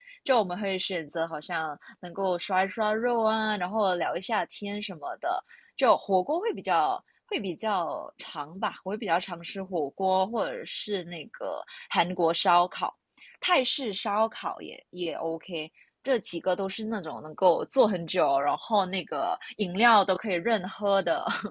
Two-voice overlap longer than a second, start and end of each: none

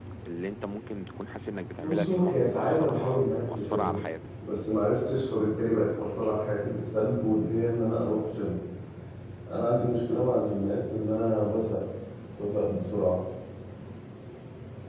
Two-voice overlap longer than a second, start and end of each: 1.8-4.0

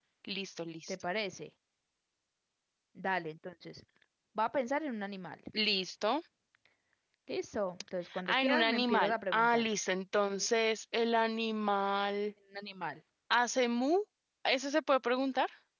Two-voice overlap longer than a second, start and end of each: 8.2-9.7

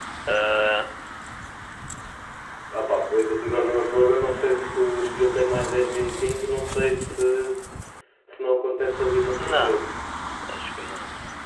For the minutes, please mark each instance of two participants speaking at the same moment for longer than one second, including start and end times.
none

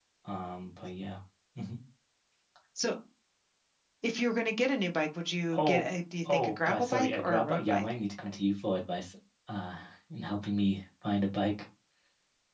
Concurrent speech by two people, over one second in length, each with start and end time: 6.3-7.8

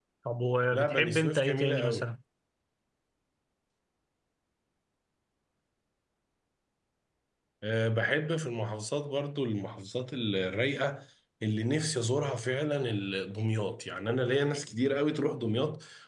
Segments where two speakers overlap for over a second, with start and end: 0.7-2.1

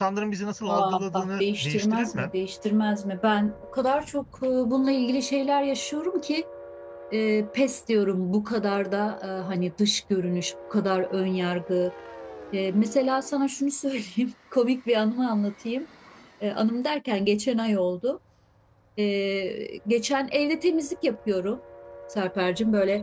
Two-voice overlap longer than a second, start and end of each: 0.7-2.3

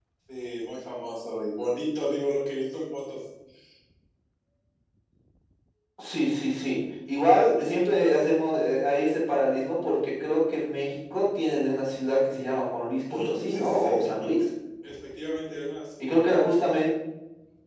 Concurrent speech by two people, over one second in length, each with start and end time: 13.1-14.3

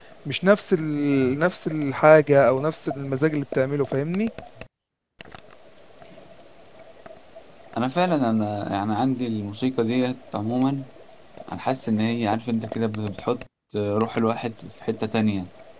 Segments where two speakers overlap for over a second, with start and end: none

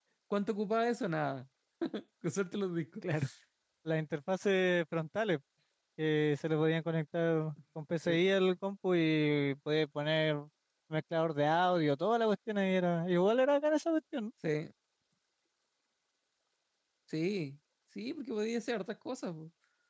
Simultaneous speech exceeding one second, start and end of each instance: none

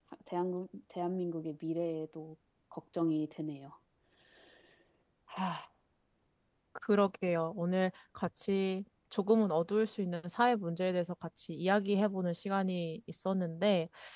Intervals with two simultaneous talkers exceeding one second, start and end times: none

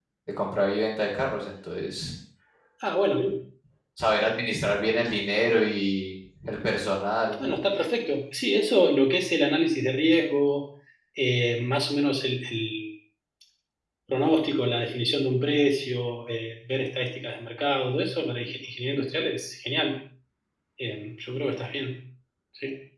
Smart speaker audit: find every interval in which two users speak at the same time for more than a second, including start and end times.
none

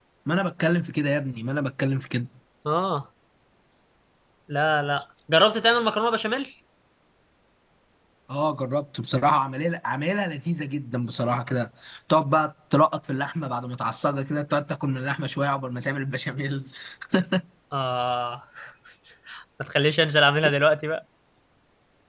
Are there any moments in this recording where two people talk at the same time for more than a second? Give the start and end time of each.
none

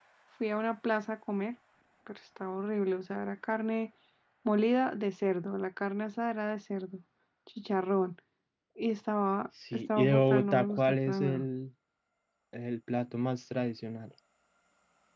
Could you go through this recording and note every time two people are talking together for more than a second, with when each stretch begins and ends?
9.7-11.4

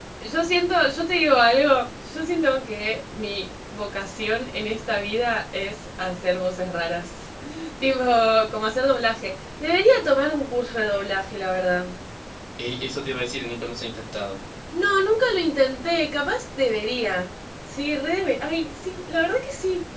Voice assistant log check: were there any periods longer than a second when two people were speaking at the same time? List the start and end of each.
none

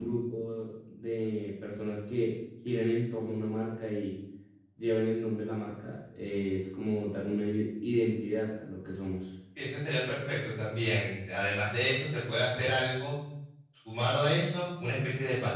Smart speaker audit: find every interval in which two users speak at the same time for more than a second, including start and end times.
none

